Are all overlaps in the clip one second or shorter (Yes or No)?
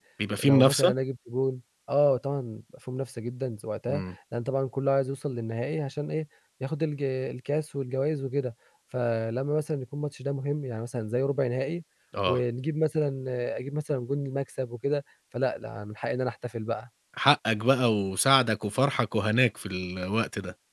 Yes